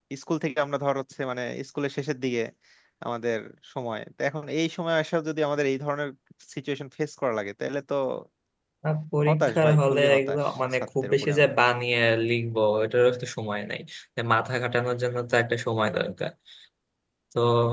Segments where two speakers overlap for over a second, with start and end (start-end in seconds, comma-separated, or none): 9.3-11.5